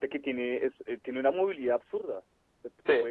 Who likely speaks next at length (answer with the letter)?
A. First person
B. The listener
A